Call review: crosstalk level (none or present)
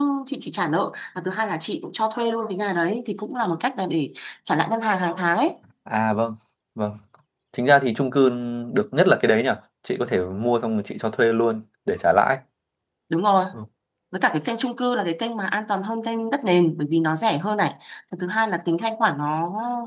none